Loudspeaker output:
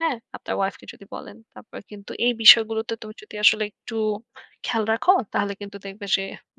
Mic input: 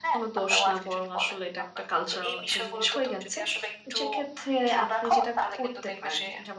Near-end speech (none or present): present